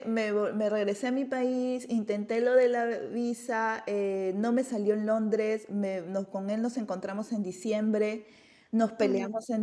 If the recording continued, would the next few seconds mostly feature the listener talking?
No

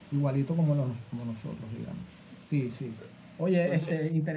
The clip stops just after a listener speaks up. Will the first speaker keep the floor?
Yes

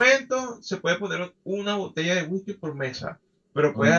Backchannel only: Yes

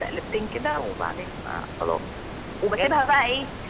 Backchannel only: Yes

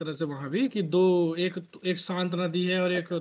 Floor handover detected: No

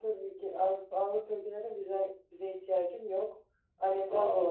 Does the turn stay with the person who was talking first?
Yes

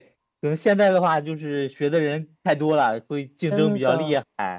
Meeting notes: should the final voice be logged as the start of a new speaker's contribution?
Yes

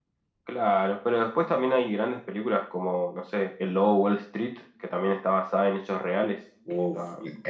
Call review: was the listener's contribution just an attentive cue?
No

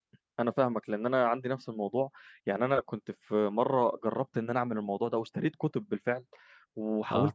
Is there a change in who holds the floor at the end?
No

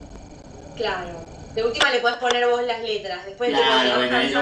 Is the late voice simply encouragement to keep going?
No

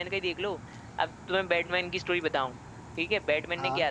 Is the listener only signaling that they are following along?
Yes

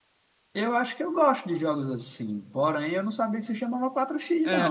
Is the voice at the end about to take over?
Yes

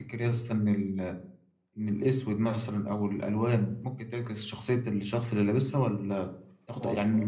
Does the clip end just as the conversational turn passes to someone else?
No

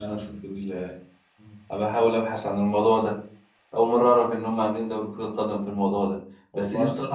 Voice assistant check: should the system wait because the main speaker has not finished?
Yes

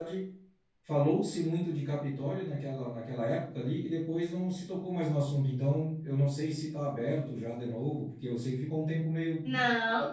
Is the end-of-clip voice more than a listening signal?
Yes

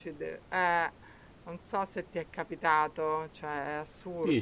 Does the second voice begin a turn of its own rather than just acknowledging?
Yes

